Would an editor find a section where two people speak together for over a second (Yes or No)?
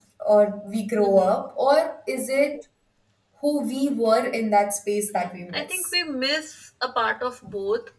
No